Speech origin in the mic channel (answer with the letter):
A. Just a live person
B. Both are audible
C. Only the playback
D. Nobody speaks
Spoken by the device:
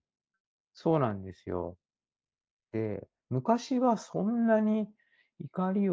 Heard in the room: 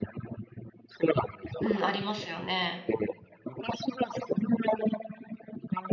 B